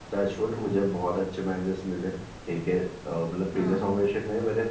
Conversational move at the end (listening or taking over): listening